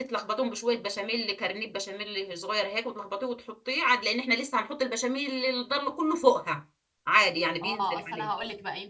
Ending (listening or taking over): taking over